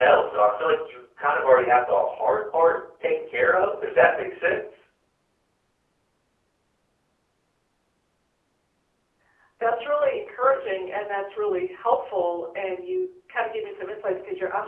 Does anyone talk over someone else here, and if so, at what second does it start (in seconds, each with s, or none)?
none